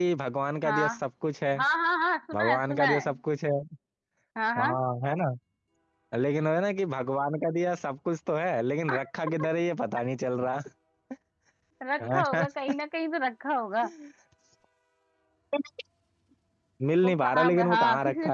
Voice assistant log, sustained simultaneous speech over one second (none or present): present